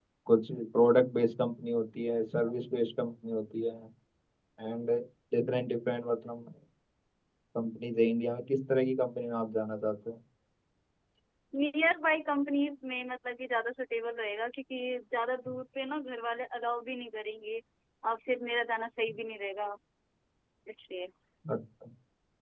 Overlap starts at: none

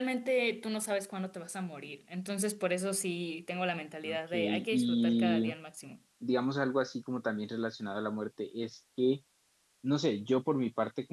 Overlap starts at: 4.0 s

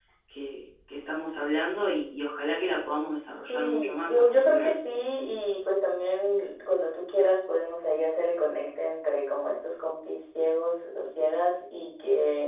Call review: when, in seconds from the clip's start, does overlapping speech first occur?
3.5 s

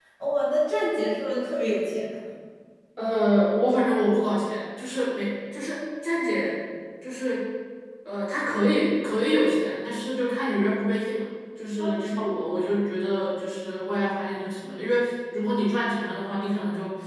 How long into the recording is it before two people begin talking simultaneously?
none

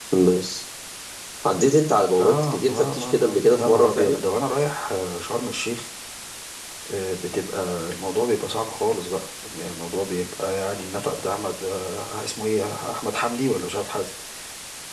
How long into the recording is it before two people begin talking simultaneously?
2.2 s

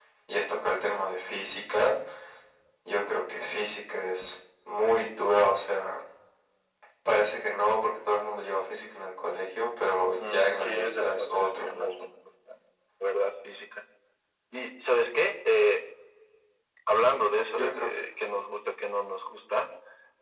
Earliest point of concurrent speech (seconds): 10.0 s

